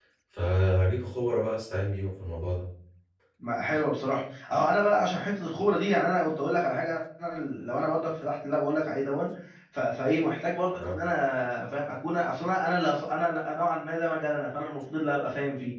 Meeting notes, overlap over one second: none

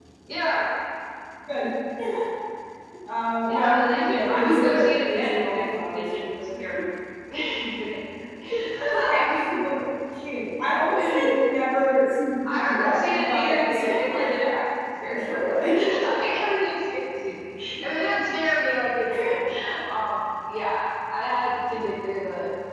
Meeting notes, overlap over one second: present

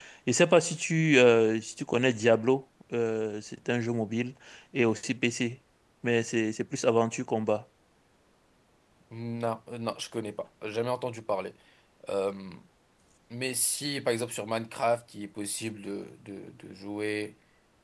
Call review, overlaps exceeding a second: none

